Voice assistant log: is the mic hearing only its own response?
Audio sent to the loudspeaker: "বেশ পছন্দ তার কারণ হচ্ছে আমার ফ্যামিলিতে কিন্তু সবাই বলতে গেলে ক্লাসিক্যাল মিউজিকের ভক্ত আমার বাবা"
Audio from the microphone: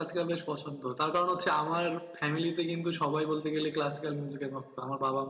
Yes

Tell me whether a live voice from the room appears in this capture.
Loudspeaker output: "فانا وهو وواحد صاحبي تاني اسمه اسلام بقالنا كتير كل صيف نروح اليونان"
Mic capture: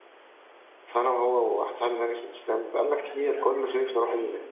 Yes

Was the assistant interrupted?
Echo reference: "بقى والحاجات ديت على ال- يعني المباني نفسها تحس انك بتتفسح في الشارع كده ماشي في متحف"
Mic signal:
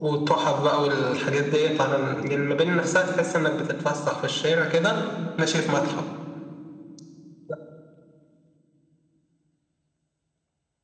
No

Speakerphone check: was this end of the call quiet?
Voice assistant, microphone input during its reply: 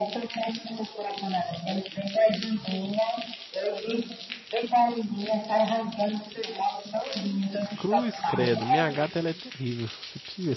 No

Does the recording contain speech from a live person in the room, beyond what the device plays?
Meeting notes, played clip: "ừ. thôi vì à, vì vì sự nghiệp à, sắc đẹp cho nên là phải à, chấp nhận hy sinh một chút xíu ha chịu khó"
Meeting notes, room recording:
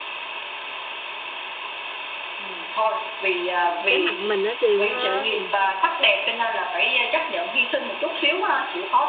Yes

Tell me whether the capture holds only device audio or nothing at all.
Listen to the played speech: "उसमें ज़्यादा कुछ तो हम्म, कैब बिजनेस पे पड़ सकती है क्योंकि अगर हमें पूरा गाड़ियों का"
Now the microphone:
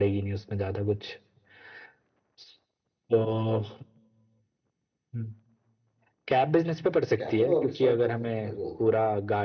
No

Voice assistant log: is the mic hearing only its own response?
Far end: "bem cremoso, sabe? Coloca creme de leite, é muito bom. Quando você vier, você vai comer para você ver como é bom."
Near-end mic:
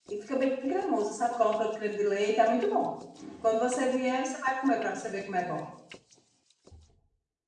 Yes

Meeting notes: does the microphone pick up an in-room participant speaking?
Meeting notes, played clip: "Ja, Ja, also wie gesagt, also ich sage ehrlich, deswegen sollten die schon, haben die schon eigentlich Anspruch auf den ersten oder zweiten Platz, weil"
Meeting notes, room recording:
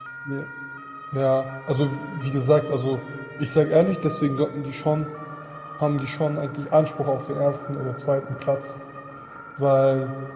No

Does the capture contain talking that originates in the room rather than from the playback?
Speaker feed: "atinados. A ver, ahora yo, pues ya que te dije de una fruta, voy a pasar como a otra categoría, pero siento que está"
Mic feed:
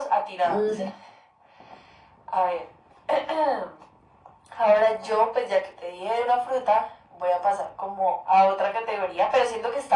Yes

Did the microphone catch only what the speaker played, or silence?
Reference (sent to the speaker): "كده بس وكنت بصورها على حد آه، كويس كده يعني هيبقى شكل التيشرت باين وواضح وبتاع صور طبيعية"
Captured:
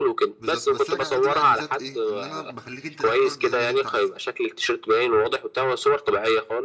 No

